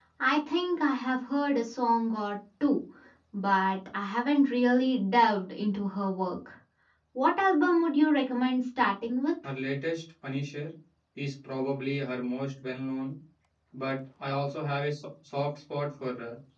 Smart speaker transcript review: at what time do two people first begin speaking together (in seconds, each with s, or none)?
none